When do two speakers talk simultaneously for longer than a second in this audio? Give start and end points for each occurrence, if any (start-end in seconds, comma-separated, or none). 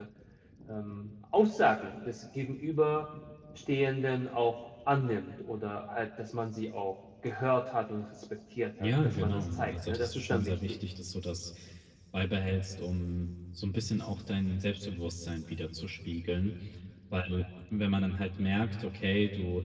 8.8-10.8